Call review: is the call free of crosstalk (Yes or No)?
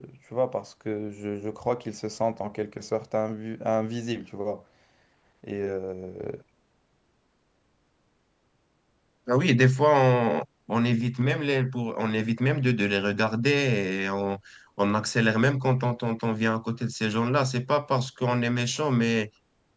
Yes